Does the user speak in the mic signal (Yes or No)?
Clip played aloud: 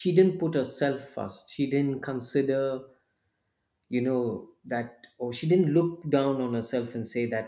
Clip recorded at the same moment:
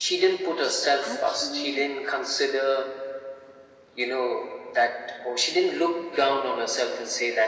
Yes